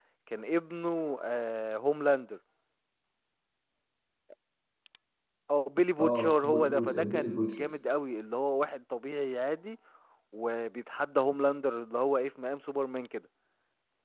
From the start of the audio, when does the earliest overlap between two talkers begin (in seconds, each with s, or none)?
6.0 s